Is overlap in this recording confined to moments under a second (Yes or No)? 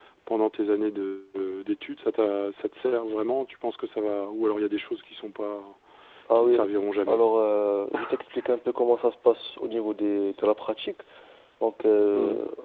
Yes